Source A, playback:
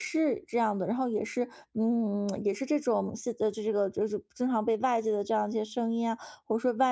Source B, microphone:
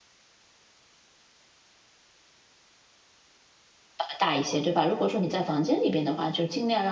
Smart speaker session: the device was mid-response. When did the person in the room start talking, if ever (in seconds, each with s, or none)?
4.0 s